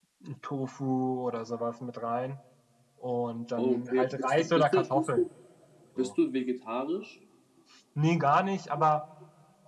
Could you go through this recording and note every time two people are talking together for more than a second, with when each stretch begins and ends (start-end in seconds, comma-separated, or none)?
3.6-5.2